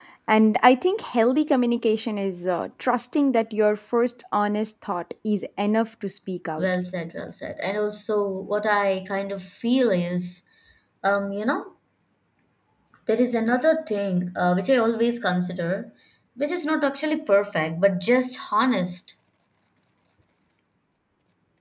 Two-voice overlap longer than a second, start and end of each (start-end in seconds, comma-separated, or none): none